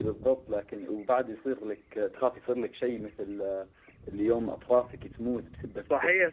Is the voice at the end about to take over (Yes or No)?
Yes